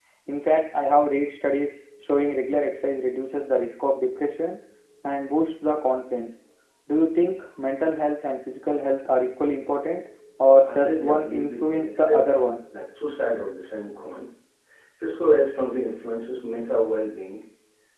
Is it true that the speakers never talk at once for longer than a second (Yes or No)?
No